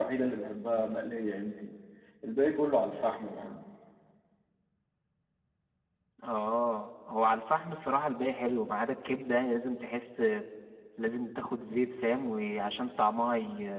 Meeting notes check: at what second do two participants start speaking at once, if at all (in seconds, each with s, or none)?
none